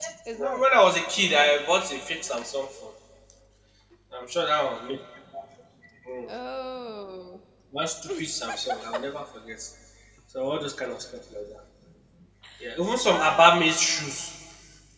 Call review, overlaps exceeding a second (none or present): none